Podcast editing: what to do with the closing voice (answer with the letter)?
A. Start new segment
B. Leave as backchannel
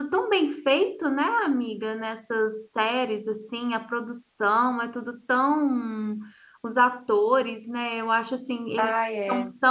B